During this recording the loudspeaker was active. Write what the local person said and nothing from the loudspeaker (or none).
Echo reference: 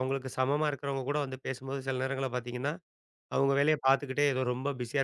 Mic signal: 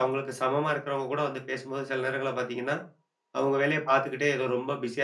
none